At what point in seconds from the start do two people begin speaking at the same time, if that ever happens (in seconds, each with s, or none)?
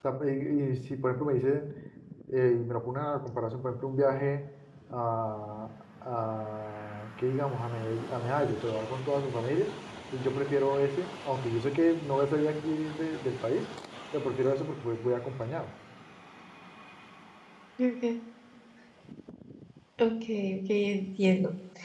none